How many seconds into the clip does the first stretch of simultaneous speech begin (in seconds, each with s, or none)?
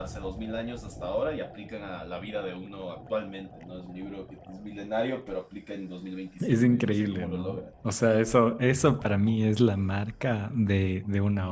6.4 s